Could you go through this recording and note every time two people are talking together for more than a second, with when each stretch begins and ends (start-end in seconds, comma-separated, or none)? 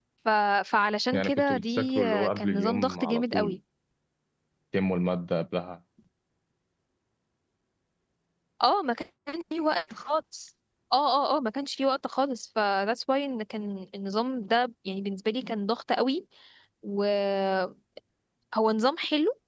1.1-3.6